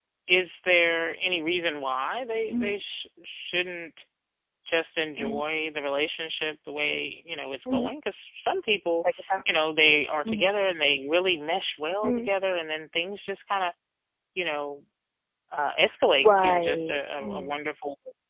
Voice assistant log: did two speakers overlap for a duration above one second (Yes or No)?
Yes